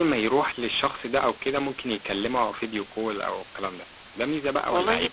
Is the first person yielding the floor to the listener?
Yes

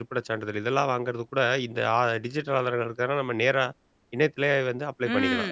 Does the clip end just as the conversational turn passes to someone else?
Yes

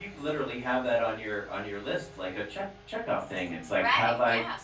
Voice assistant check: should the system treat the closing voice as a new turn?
Yes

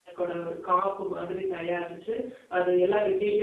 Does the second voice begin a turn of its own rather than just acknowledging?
No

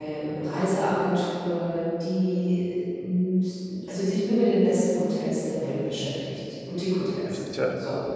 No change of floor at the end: No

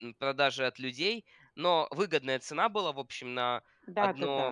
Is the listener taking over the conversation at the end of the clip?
No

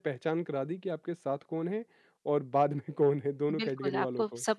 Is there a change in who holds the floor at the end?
Yes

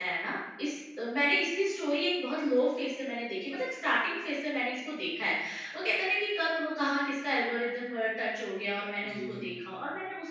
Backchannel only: Yes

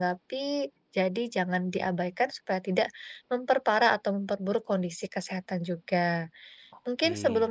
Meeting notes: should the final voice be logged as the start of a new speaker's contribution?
No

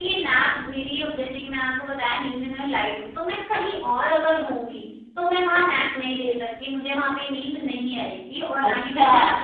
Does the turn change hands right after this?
Yes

